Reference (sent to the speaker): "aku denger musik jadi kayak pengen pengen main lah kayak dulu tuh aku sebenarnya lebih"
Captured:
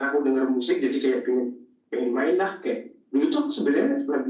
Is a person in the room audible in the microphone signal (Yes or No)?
No